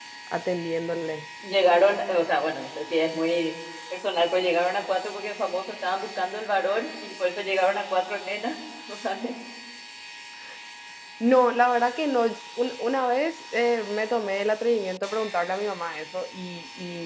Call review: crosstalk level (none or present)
none